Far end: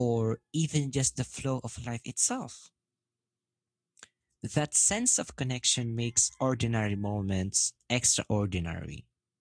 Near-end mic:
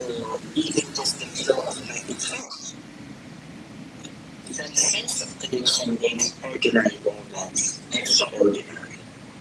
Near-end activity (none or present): none